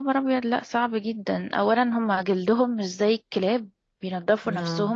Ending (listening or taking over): listening